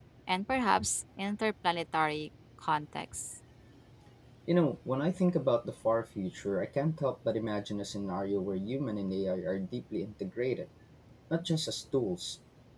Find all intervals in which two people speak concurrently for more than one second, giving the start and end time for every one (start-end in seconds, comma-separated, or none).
none